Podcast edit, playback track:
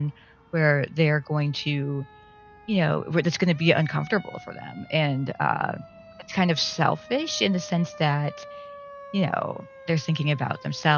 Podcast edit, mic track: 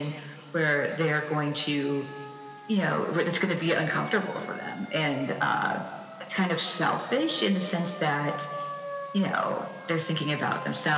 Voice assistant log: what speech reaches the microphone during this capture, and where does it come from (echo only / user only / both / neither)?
echo only